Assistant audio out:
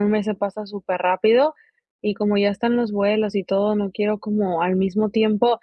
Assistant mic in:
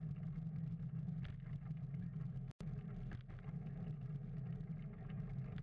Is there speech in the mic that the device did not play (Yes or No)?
No